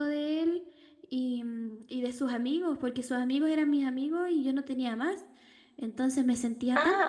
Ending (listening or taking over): taking over